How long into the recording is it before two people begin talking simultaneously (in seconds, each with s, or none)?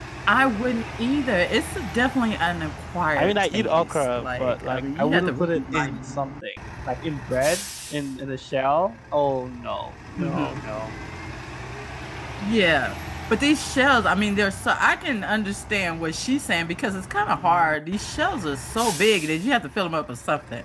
3.2 s